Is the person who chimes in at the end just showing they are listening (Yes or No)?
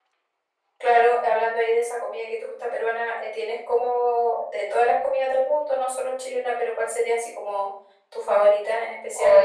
No